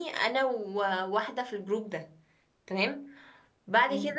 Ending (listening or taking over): listening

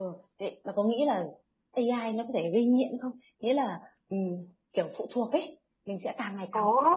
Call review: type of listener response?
taking over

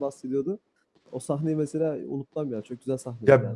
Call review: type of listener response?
taking over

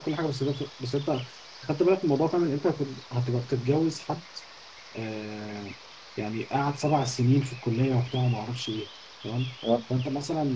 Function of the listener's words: listening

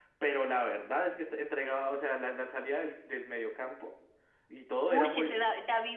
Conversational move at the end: taking over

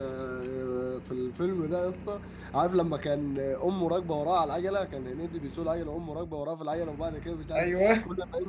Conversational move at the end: listening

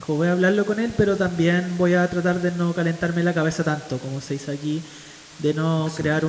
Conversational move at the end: listening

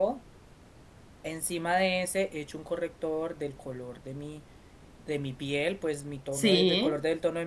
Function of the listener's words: listening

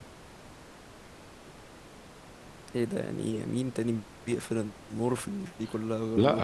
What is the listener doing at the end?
taking over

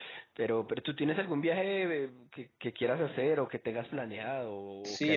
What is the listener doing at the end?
taking over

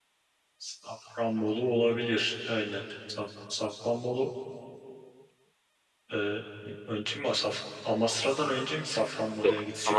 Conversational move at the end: taking over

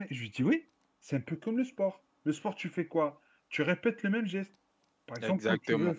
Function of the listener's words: listening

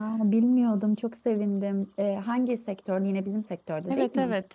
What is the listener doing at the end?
taking over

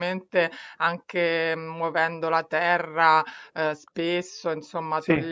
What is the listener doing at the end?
listening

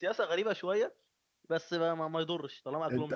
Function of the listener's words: taking over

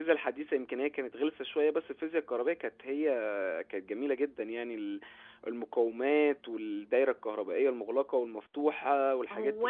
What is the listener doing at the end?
taking over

